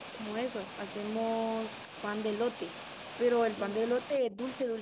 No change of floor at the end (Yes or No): Yes